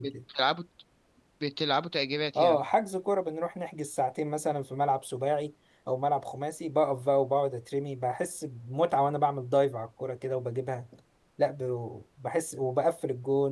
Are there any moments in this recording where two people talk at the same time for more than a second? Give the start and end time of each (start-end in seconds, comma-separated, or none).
none